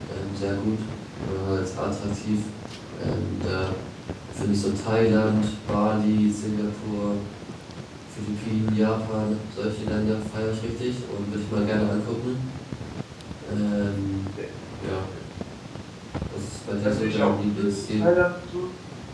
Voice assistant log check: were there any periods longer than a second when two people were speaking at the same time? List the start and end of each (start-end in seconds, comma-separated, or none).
16.8-18.0